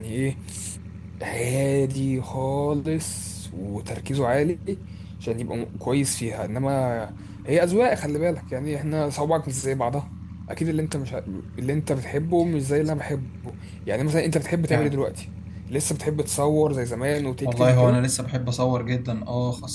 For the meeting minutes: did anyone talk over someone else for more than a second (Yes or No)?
No